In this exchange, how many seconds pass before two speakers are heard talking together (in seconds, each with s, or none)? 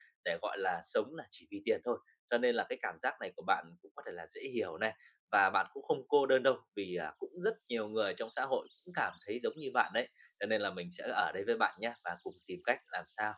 none